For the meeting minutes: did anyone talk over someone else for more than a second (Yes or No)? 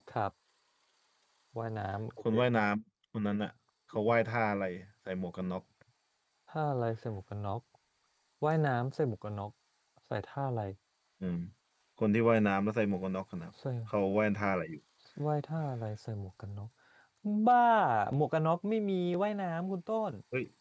No